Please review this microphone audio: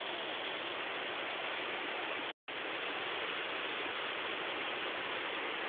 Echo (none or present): none